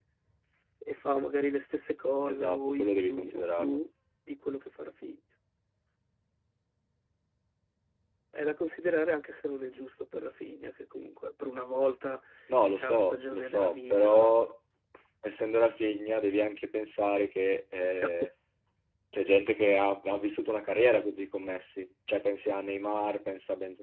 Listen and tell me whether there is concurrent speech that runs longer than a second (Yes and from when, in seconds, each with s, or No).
Yes, from 2.2 s